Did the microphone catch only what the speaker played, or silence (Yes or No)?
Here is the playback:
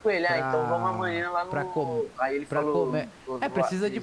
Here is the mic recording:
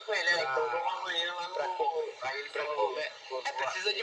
Yes